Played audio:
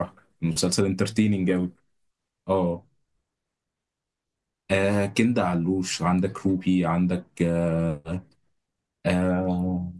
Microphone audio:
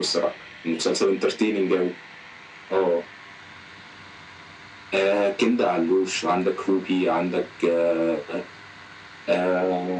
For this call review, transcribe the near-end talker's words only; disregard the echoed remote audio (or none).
none